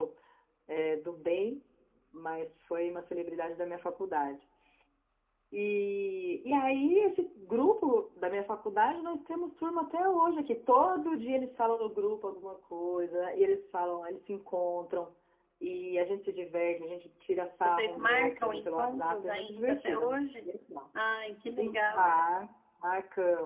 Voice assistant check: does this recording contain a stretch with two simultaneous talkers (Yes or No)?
Yes